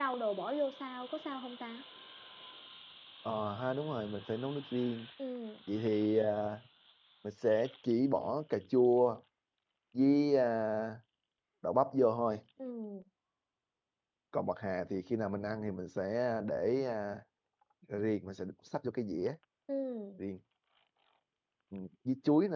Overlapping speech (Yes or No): No